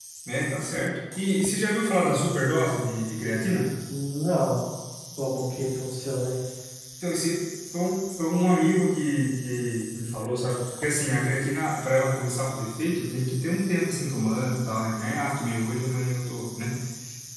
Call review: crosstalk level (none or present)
none